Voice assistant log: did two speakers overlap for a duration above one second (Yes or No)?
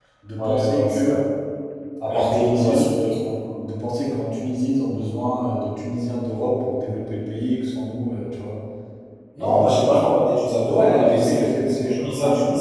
Yes